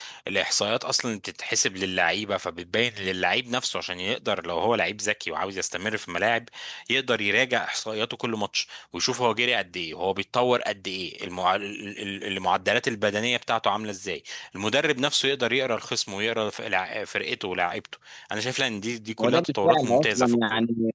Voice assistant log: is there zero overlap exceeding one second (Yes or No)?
No